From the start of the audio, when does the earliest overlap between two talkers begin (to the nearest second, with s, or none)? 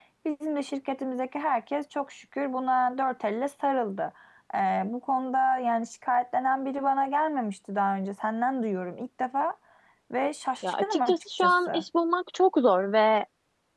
11 s